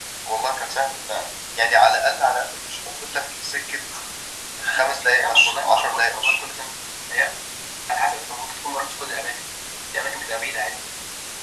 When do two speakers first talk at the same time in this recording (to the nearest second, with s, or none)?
5 s